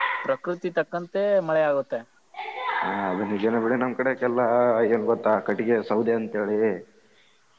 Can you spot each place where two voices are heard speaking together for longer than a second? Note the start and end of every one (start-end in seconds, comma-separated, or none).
none